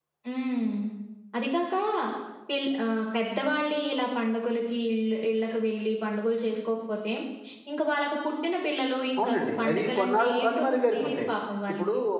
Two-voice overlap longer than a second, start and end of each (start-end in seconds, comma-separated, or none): 9.2-11.3